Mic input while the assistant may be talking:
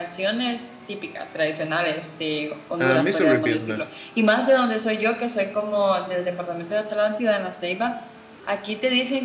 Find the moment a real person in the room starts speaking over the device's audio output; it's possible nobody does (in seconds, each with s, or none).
2.8 s